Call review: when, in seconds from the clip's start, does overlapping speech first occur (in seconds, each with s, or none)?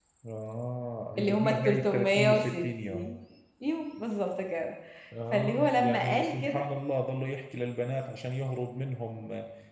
1.2 s